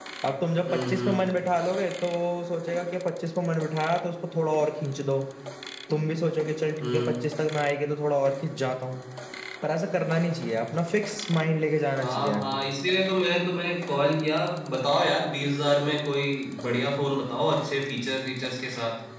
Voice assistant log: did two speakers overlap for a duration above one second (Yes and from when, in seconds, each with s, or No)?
No